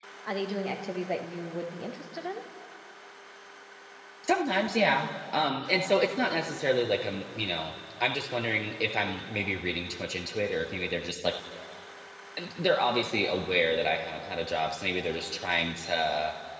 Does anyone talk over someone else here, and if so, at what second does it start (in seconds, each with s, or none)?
none